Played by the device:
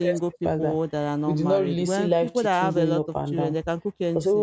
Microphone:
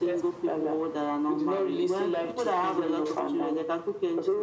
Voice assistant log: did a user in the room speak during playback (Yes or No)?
No